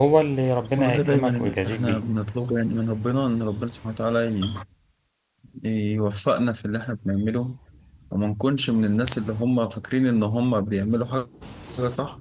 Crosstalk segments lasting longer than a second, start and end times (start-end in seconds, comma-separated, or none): 0.8-2.0